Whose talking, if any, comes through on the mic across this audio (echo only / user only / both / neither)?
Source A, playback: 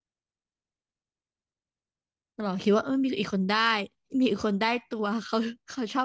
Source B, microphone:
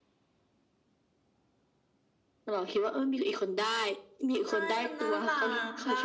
both